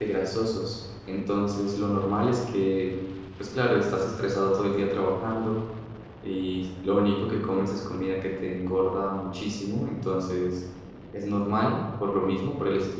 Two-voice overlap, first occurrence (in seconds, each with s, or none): none